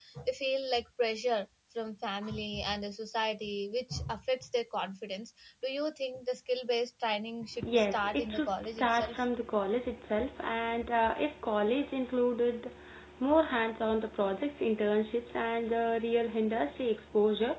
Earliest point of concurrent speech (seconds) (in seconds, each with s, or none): 7.9 s